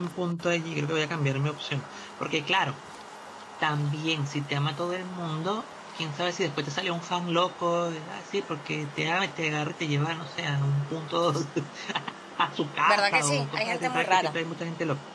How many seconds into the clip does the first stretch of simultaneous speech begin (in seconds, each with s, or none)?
12.8 s